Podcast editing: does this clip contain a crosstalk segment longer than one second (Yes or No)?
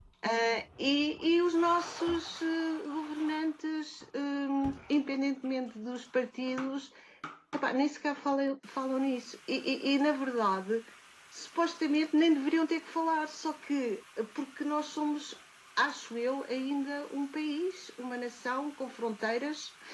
No